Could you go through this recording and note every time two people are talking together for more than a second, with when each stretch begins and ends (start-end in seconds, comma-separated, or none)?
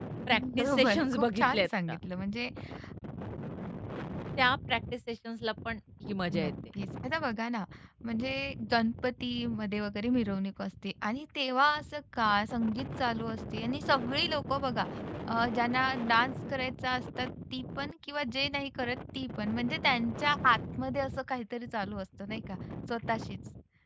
0.6-2.0